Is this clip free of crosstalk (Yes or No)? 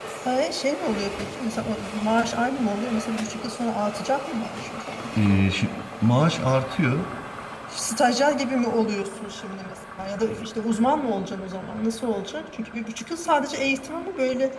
Yes